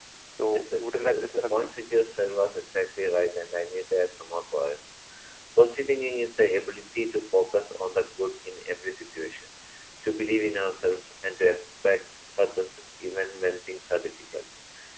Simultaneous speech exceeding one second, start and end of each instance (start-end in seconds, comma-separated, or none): 0.5-1.7